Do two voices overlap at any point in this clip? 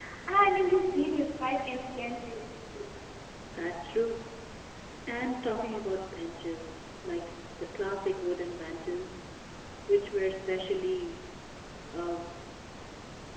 No

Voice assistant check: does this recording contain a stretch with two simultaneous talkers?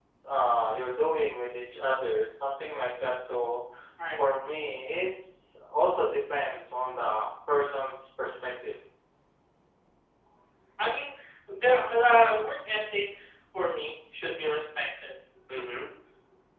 No

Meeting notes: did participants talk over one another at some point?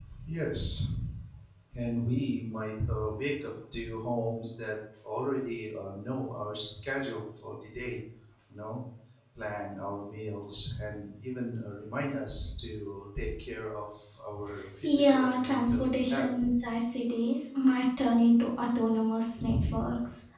Yes, from 14.8 s

